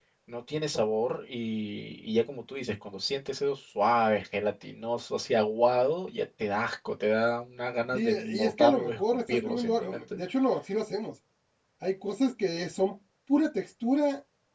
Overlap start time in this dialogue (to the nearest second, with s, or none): 8 s